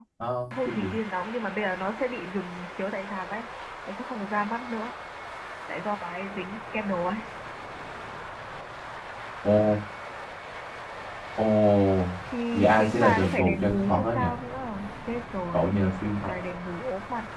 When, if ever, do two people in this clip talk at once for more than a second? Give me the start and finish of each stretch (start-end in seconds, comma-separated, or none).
12.5-14.2